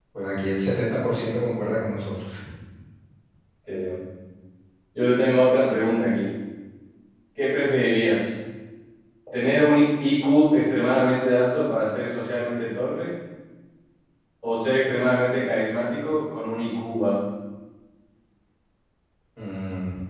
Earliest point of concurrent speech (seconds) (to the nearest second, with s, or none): none